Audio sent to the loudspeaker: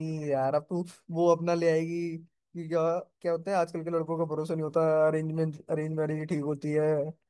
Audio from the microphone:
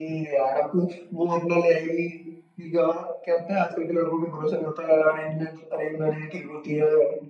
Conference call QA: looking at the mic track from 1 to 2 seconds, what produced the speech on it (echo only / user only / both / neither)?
echo only